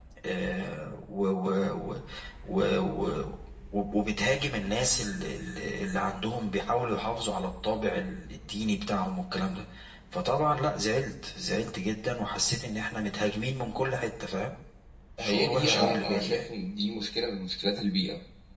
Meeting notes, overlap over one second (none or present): present